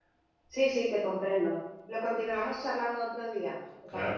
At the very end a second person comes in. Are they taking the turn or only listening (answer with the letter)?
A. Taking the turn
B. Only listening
A